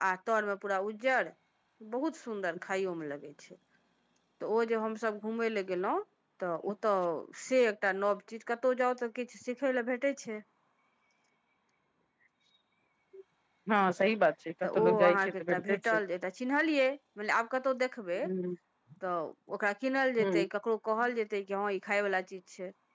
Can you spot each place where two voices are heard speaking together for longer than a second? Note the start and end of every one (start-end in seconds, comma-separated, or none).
14.8-16.0